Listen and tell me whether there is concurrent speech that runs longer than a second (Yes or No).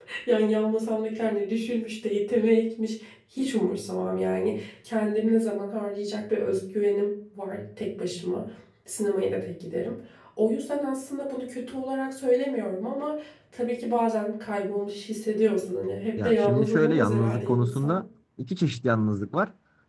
Yes